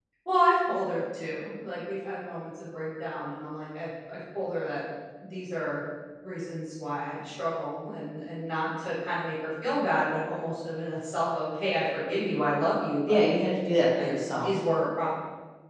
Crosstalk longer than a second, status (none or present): none